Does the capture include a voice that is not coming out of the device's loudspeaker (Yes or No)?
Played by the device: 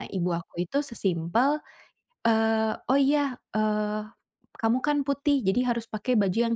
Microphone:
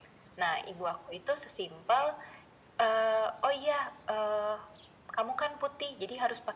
No